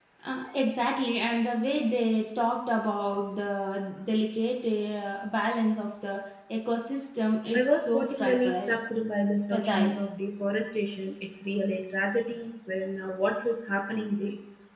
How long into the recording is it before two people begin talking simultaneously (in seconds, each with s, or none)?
7.5 s